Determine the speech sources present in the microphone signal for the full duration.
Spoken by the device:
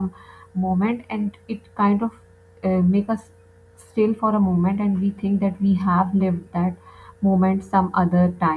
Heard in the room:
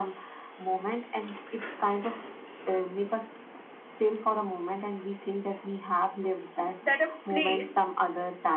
both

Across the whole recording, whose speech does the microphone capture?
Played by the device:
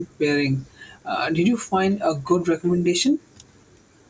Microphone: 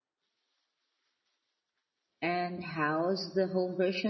user only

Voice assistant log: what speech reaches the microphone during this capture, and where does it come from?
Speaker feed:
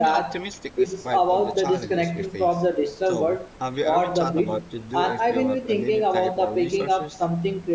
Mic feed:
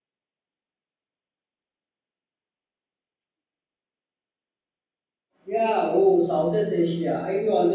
user only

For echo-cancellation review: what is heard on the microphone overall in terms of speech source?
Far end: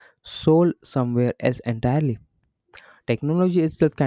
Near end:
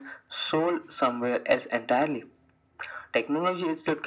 echo only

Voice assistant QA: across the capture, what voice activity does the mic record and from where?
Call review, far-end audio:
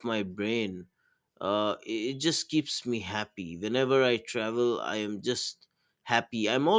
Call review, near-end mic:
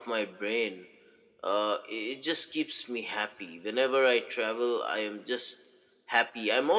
echo only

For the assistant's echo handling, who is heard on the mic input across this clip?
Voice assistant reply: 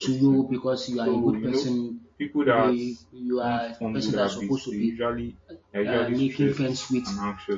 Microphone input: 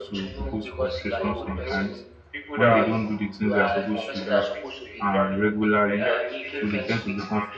both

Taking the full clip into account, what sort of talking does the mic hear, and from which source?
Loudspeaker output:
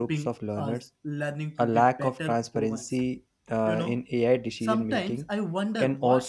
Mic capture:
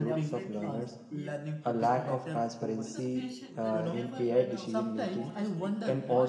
both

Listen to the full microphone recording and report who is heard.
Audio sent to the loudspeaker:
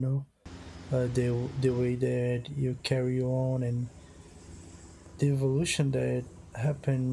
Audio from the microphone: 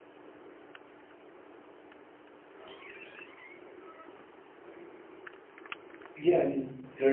user only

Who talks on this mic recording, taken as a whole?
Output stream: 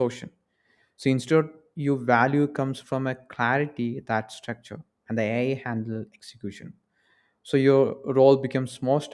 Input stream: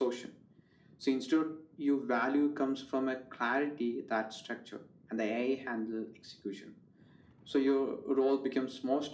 echo only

